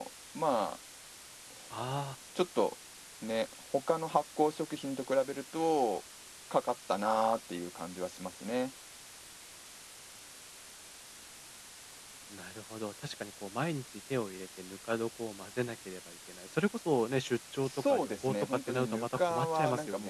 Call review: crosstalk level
present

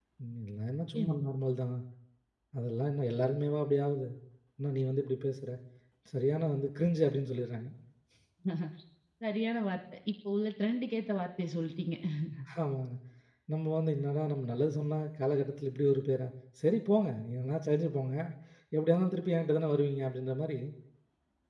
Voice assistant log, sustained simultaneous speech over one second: none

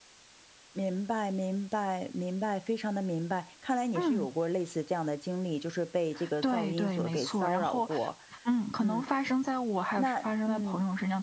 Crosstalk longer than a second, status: present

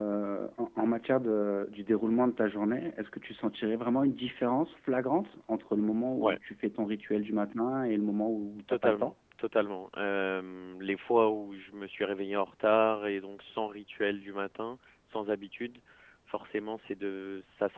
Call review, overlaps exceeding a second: none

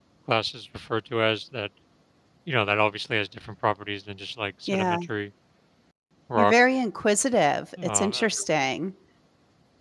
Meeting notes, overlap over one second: none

